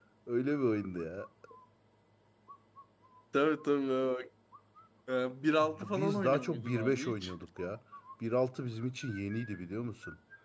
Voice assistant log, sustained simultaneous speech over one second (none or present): present